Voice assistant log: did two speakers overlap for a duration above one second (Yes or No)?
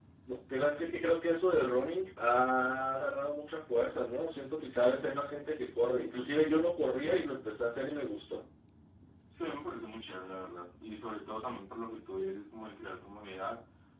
No